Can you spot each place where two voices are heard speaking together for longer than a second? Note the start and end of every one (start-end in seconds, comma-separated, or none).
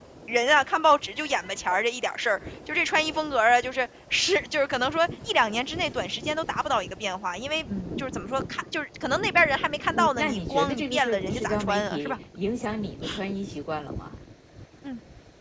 9.9-12.2